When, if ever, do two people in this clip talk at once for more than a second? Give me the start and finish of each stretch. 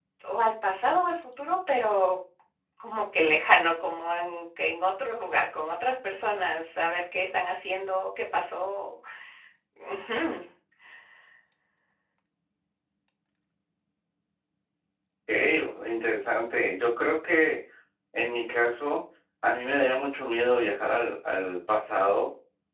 none

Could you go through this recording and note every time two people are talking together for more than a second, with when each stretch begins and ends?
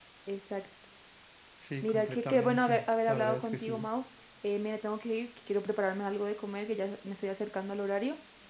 1.8-3.9

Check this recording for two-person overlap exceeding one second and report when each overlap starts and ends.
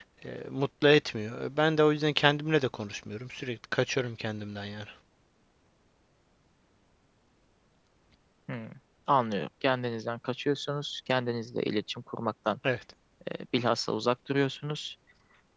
none

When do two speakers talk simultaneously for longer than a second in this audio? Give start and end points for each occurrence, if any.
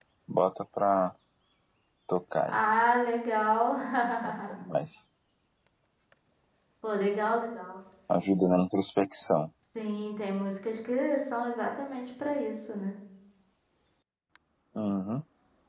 none

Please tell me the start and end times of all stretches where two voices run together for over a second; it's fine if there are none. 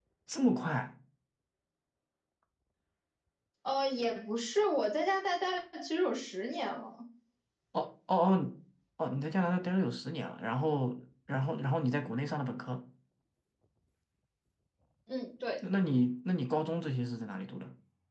none

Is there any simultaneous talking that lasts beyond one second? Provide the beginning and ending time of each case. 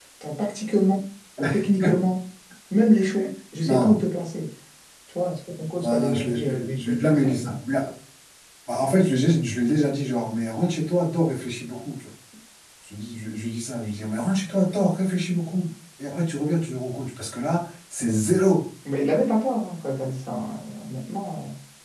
5.8-7.5

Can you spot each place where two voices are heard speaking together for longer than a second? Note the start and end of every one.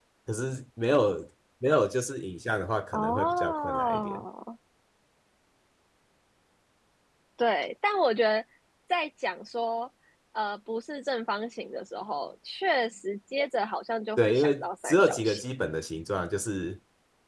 2.9-4.2, 14.2-15.4

